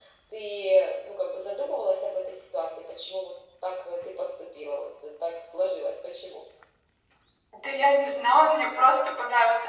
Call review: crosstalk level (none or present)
none